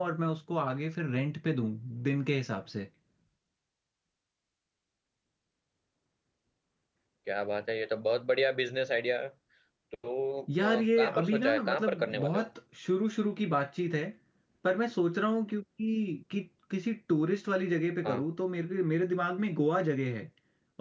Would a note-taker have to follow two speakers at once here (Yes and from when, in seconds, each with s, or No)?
Yes, from 10.6 s